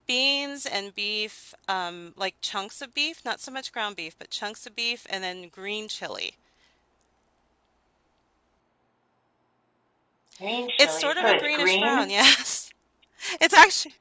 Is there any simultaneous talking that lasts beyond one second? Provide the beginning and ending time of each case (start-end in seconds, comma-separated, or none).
10.8-12.1